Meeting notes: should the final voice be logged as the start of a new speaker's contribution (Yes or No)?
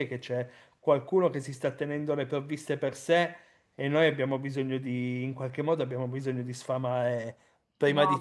Yes